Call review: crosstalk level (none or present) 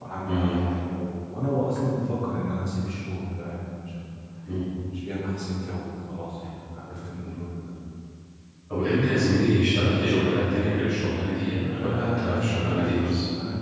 present